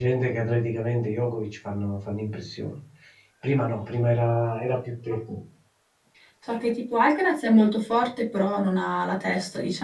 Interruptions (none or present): none